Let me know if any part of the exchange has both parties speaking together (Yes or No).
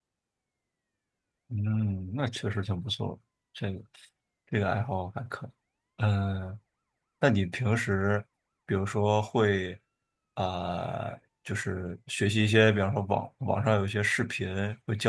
No